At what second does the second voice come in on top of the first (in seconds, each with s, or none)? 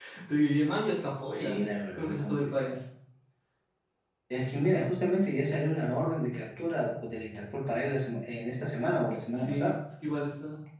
1.4 s